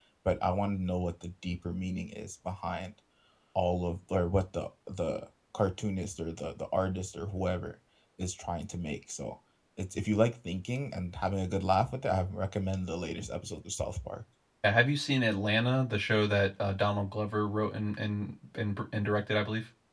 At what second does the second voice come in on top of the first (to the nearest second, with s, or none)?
none